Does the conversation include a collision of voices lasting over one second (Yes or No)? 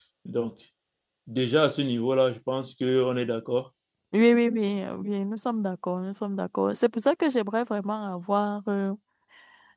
No